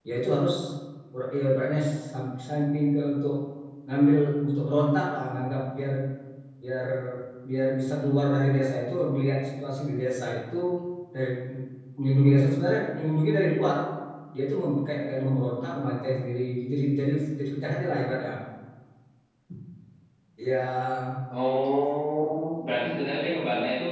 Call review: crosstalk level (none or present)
none